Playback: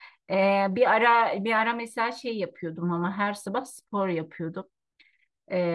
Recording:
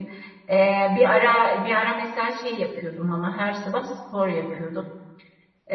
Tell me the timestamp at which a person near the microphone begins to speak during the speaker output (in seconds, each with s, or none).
none